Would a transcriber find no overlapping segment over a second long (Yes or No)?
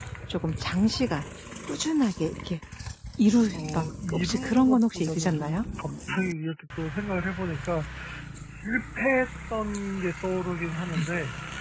No